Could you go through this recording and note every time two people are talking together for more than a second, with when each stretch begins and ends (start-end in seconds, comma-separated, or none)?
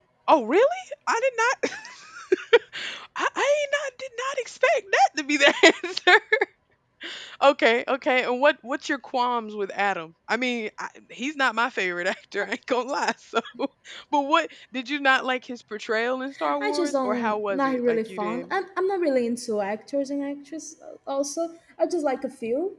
16.6-18.5